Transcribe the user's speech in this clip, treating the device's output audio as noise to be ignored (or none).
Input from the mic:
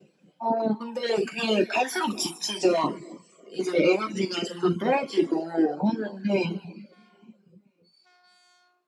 none